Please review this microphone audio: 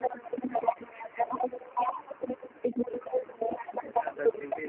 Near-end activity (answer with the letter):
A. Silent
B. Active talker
B